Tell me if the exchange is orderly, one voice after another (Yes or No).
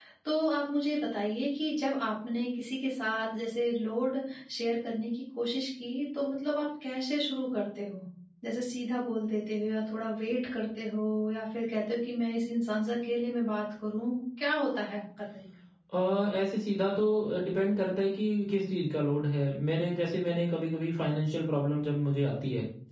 Yes